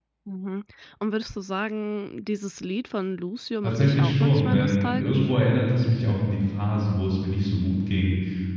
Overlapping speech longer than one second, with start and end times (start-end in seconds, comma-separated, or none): 3.6-5.3